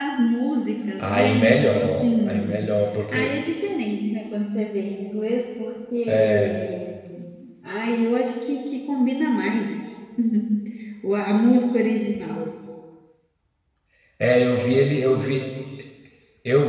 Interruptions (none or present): present